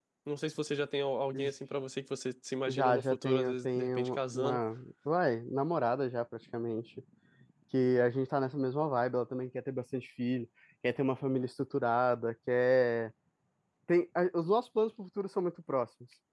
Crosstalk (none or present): present